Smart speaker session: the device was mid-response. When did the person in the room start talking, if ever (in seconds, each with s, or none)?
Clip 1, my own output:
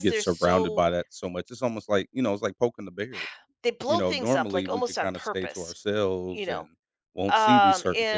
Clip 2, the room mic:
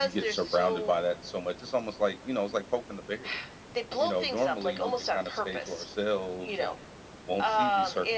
none